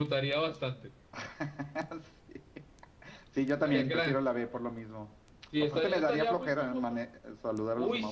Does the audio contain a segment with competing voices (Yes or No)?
Yes